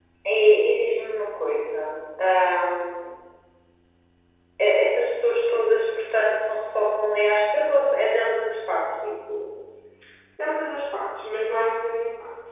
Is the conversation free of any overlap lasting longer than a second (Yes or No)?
Yes